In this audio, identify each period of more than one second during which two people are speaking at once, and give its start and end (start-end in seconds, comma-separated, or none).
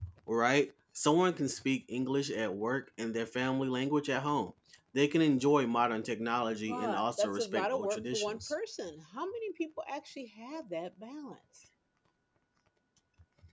6.7-8.5